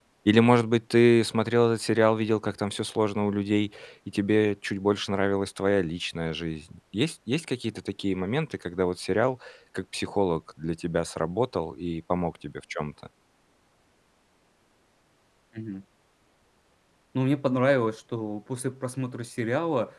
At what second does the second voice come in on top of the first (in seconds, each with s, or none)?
none